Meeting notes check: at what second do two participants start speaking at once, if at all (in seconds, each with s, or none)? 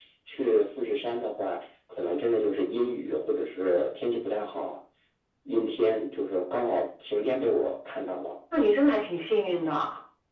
none